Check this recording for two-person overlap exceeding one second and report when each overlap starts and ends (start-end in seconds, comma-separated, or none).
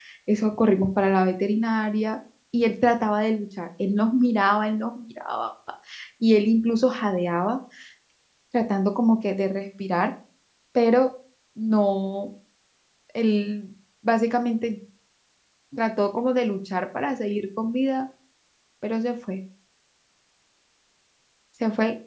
none